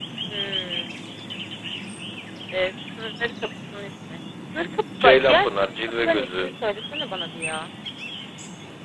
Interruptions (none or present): present